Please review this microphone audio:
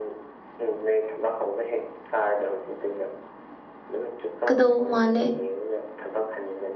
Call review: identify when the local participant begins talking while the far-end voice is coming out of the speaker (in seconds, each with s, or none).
4.5 s